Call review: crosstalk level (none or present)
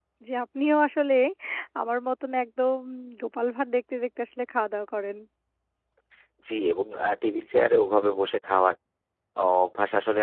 none